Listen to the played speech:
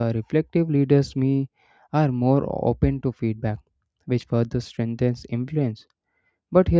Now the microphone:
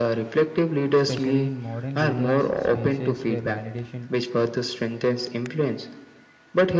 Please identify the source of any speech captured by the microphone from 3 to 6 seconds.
both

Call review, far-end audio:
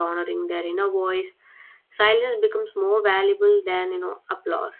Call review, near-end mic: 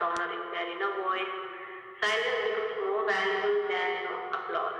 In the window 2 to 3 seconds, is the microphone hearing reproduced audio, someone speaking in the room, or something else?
echo only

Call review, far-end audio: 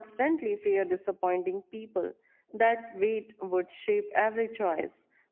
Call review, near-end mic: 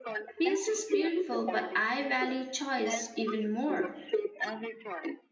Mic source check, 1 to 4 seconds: both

